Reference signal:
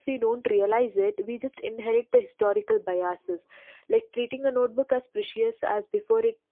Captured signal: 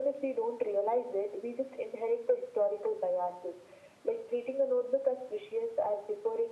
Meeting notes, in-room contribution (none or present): none